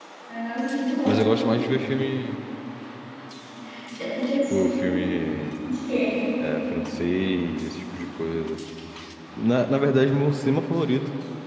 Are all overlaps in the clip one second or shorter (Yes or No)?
Yes